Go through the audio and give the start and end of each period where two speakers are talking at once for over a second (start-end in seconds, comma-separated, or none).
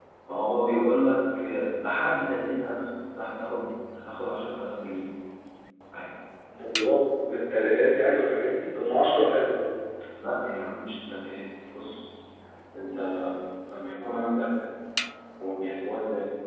none